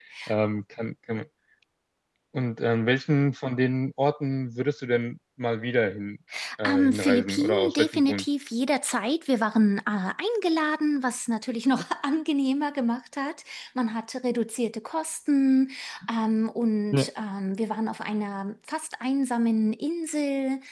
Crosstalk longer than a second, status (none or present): present